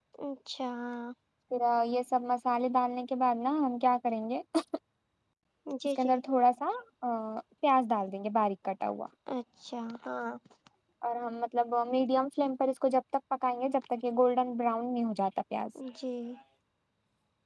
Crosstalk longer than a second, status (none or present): none